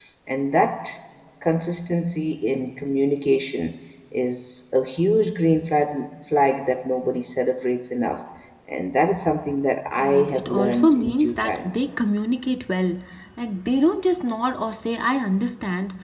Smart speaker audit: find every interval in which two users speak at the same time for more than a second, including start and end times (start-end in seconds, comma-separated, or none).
10.0-11.7